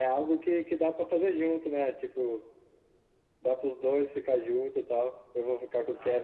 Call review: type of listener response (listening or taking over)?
listening